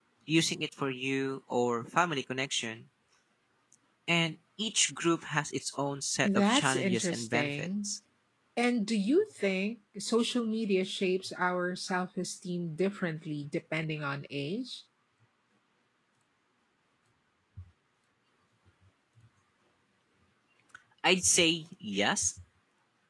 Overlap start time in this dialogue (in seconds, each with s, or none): 6.2 s